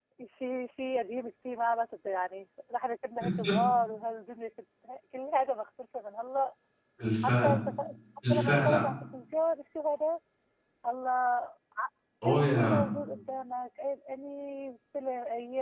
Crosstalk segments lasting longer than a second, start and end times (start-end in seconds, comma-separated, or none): none